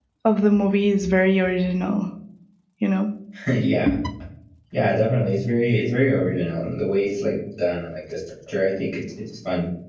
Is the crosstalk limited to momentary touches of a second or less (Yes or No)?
Yes